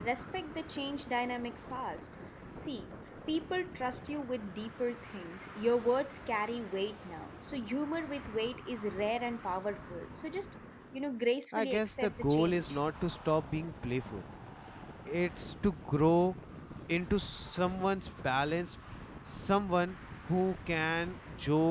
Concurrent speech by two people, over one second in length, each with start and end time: 11.5-12.8

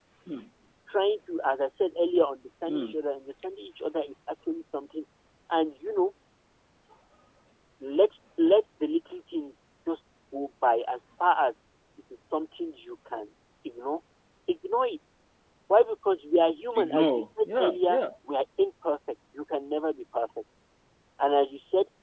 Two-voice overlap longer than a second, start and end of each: 16.8-18.0

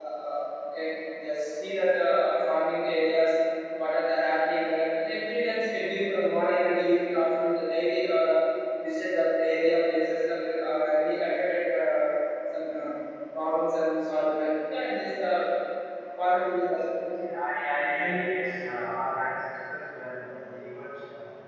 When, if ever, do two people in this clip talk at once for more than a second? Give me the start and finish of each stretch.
none

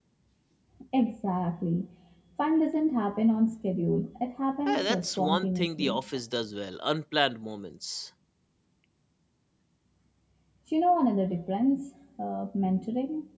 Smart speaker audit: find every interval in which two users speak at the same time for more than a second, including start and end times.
4.7-6.0

